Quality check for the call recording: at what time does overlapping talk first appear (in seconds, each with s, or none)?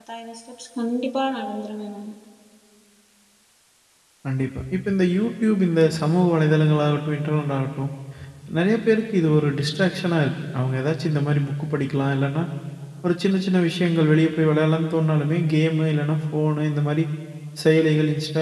none